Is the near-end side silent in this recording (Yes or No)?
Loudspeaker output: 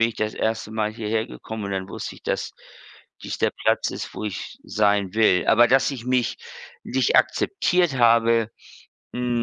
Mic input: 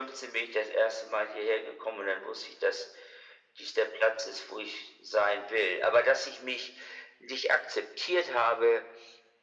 Yes